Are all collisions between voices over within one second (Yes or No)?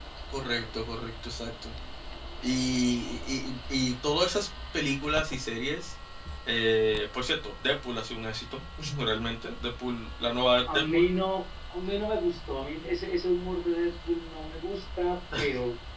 Yes